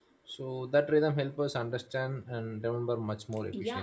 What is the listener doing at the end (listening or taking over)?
taking over